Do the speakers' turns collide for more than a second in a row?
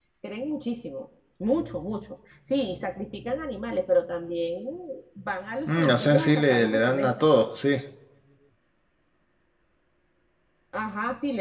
Yes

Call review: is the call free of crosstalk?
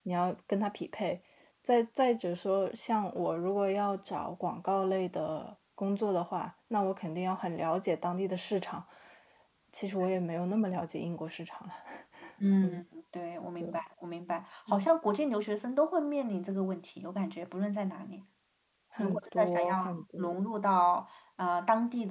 No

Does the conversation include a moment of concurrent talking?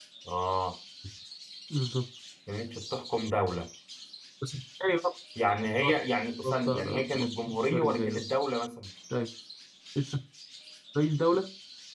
Yes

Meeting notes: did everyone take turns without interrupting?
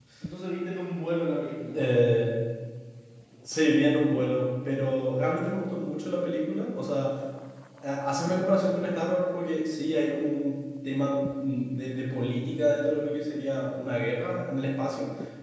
Yes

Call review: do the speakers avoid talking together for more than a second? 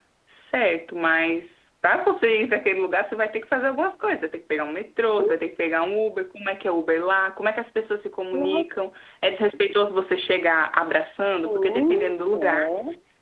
No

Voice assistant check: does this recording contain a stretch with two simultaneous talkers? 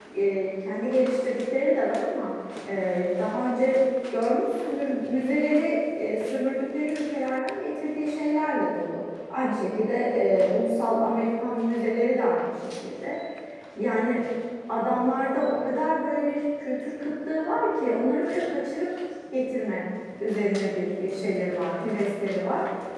No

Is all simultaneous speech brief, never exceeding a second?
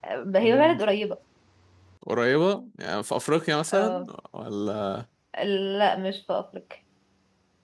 Yes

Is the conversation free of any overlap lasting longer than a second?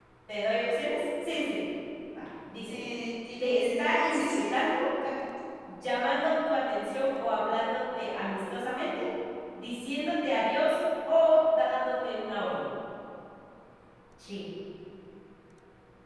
No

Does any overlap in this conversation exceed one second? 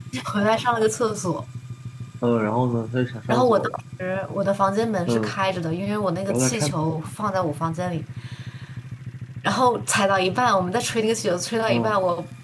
No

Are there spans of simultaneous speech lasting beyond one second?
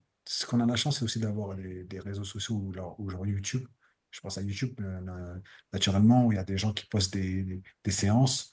No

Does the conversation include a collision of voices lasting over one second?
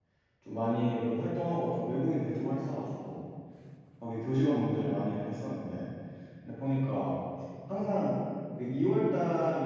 No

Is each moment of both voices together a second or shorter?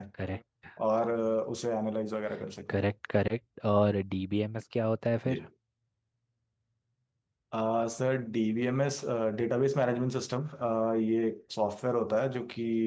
Yes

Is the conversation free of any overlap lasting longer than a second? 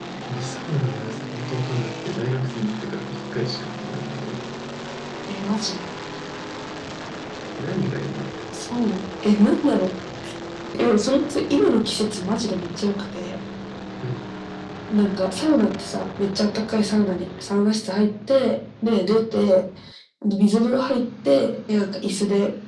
Yes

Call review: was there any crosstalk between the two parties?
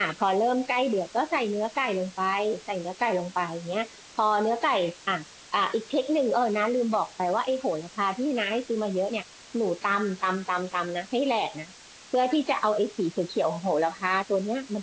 No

